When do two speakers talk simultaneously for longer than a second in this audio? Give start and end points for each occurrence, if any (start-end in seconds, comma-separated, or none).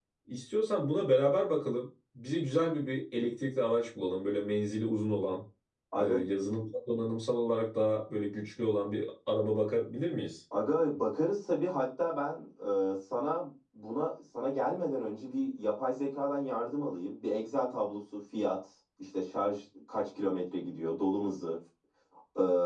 none